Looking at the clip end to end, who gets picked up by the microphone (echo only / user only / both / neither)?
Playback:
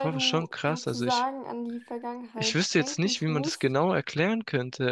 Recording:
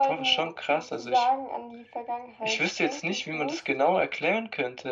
echo only